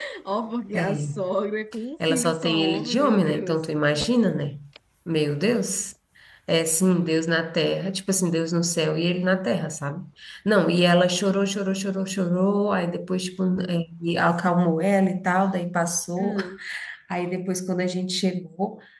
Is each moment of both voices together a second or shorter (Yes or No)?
No